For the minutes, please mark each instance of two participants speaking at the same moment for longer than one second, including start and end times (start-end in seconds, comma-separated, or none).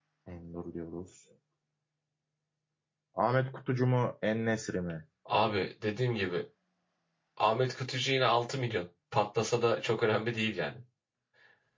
none